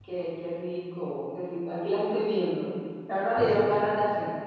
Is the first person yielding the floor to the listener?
No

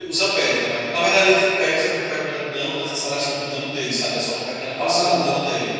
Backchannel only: No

